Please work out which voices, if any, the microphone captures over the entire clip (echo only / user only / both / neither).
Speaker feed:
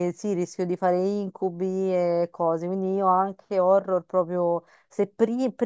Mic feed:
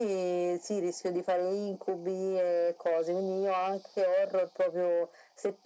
echo only